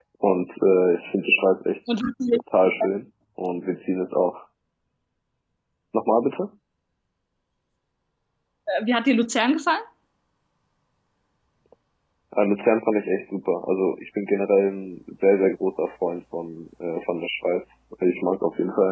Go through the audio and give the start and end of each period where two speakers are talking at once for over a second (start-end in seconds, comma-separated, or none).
none